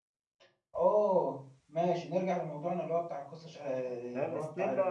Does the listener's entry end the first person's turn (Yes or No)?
Yes